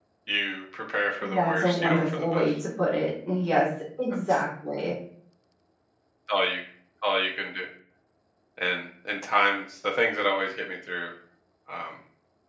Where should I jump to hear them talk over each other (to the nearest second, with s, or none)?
1 s